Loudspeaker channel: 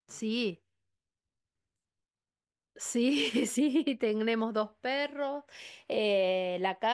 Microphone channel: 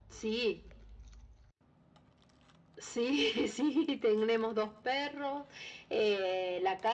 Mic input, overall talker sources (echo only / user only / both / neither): echo only